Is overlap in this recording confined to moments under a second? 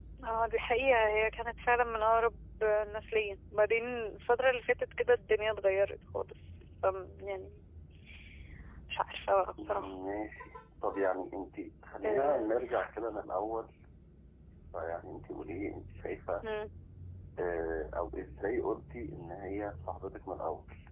Yes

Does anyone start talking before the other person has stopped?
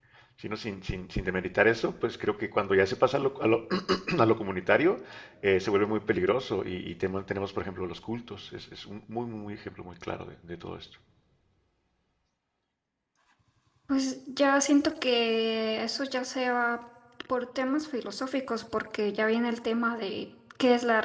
No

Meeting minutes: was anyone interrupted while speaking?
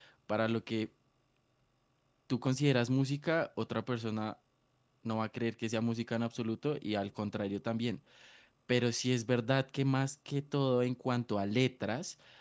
No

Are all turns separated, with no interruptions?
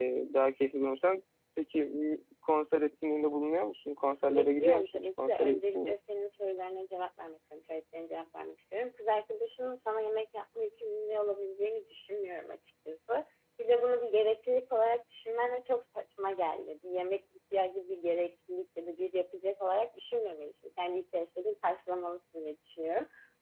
No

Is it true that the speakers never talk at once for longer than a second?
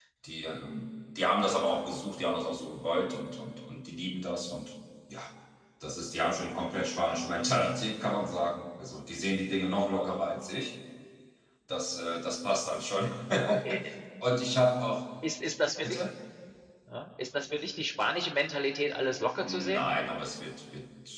Yes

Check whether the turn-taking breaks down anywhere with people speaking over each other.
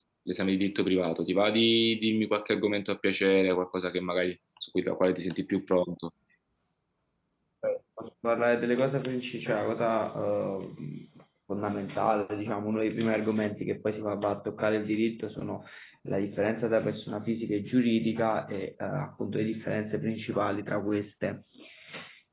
No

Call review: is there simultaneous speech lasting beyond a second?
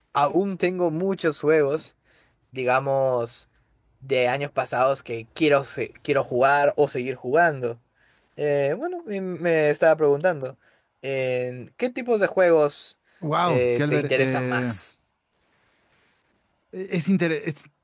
Yes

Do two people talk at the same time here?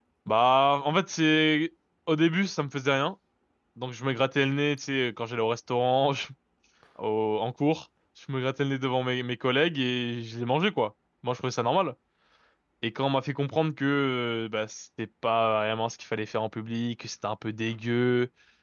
No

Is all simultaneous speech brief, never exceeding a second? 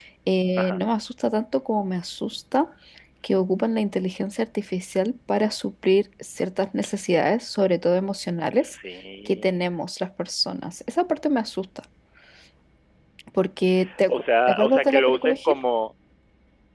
No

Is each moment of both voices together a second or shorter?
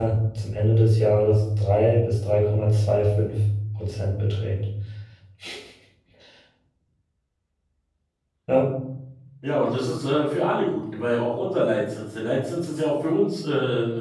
Yes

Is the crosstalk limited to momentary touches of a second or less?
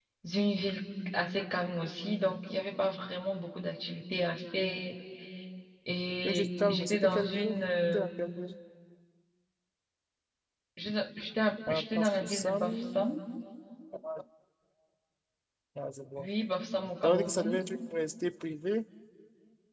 No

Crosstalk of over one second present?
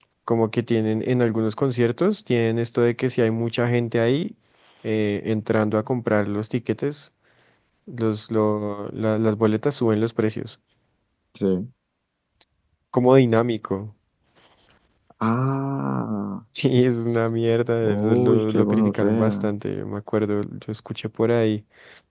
Yes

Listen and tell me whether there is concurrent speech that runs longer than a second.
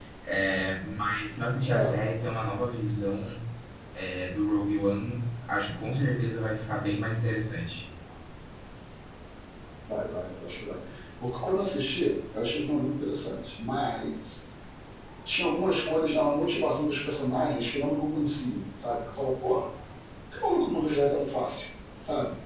No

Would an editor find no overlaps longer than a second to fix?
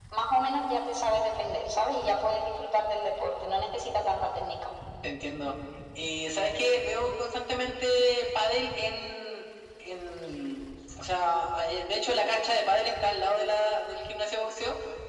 Yes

